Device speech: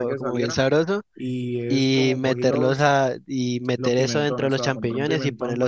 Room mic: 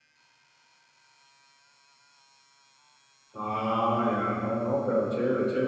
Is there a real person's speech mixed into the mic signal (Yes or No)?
Yes